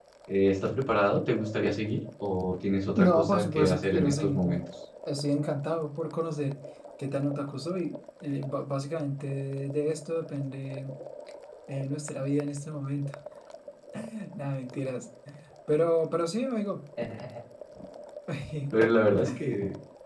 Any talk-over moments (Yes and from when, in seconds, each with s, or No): Yes, from 3.0 s